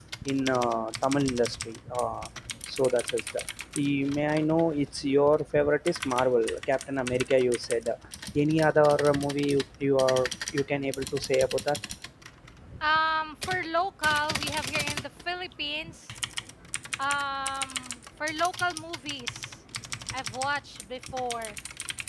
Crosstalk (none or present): none